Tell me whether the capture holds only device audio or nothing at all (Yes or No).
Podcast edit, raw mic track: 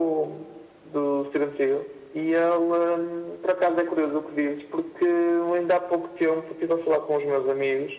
Yes